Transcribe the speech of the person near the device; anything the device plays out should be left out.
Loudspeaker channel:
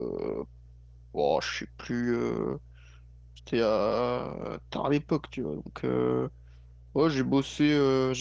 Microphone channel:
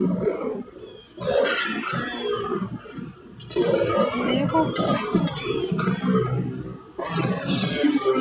Zéro.

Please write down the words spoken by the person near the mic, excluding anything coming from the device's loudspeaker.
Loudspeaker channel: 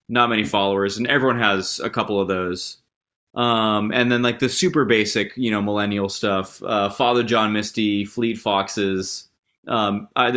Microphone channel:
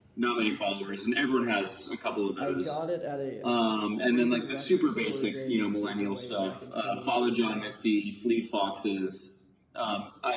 I got it at a uh, free record store day giveaway back in 2018,

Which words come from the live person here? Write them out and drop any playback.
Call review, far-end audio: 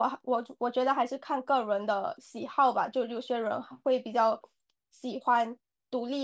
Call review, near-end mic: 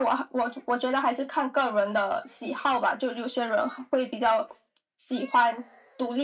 none

